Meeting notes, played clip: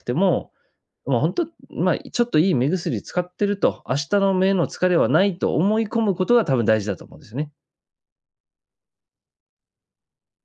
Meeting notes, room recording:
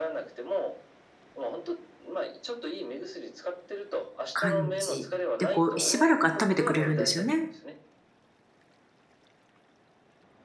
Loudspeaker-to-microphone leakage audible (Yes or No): Yes